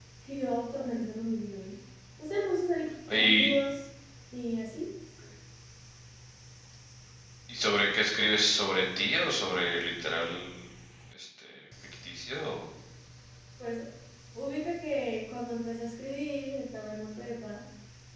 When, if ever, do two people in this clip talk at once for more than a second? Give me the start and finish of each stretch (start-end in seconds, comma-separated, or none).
none